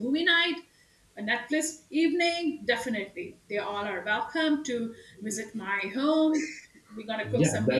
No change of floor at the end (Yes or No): No